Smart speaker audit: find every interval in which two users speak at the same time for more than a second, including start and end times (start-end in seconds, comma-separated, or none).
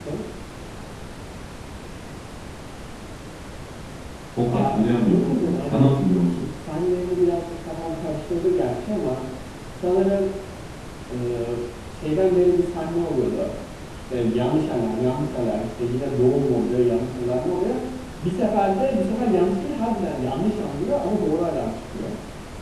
4.5-5.9